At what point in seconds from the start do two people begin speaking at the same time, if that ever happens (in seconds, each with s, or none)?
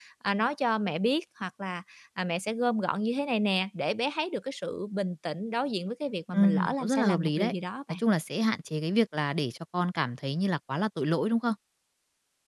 6.3 s